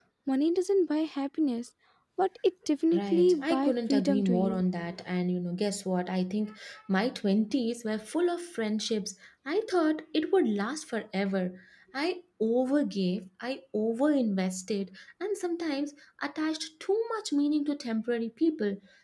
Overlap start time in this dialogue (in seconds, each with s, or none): 2.9 s